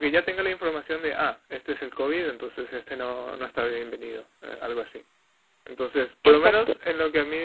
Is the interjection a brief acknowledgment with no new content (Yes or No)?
Yes